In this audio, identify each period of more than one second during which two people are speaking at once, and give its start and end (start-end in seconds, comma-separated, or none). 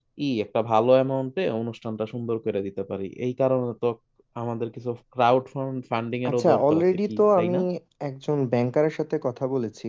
6.3-7.5